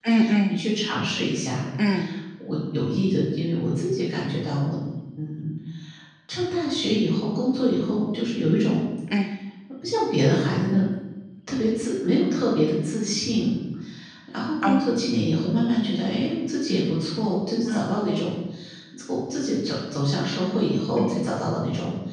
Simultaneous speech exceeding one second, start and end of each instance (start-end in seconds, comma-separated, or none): none